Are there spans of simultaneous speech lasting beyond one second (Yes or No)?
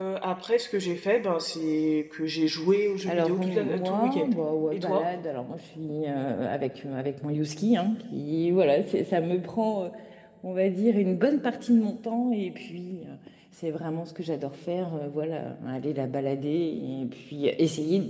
Yes